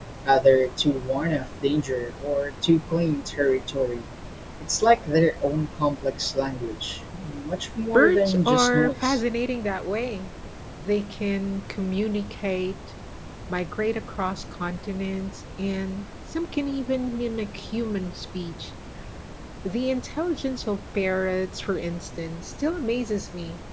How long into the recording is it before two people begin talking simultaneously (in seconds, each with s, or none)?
7.9 s